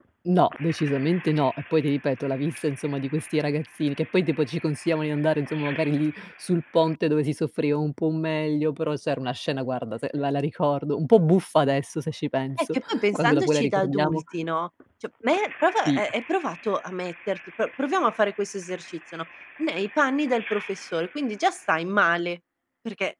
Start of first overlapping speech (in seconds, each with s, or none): 12.6 s